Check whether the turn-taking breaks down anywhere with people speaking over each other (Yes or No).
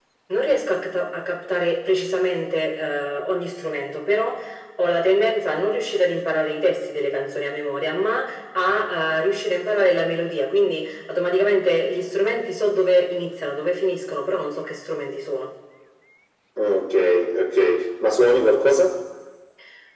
No